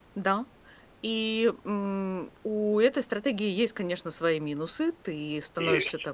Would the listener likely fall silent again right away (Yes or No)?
Yes